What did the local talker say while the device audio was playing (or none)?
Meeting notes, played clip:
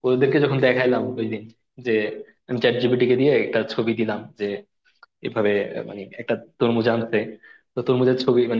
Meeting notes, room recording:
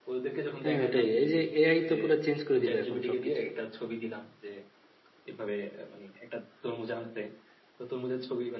হ্যাঁ ওটাই এই যে এআই তো পুরো চেঞ্জ করে দিল এখন সবকিছু